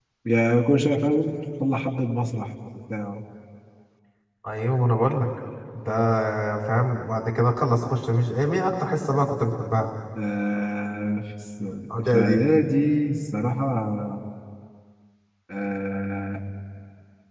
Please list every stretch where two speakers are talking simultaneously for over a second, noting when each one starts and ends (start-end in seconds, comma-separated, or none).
none